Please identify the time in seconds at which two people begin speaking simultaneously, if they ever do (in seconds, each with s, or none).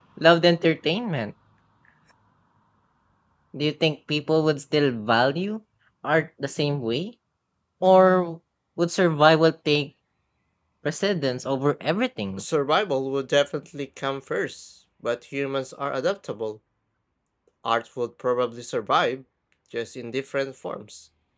none